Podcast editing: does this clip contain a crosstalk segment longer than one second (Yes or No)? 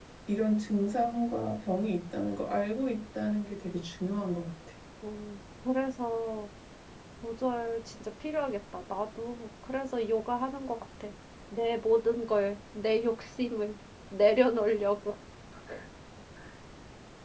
No